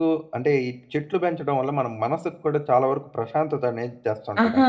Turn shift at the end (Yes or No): Yes